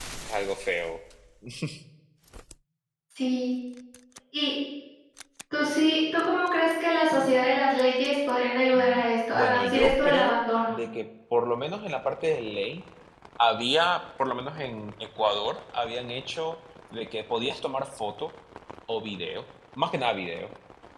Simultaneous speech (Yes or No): Yes